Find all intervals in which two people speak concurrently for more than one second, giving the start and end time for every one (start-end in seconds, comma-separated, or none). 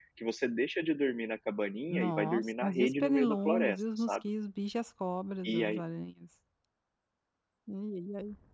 1.9-4.2